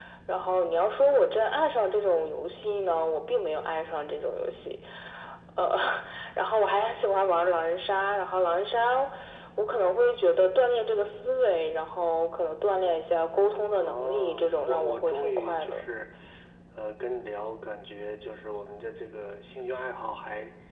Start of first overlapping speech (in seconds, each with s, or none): 13.8 s